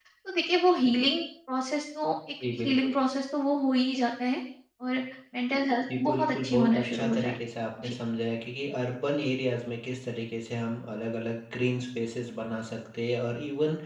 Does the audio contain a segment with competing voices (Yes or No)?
Yes